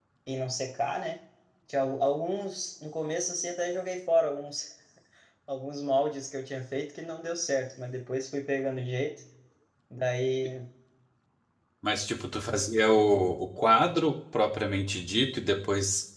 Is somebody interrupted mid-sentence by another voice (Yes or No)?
No